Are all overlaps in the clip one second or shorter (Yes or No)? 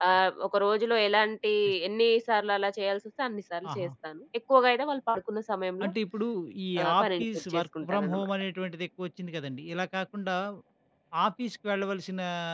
No